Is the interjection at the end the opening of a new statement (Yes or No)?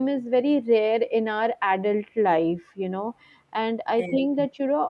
No